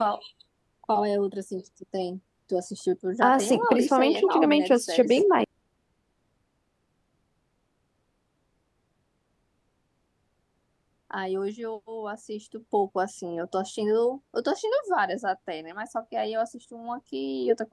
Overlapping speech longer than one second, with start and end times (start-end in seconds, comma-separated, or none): 3.2-5.1